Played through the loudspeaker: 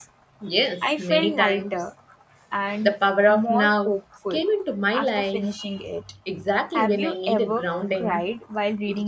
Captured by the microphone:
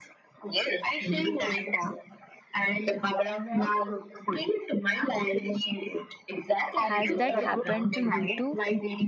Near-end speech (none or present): present